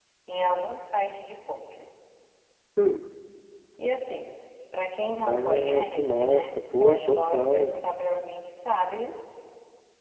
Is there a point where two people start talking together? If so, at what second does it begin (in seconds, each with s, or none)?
5.2 s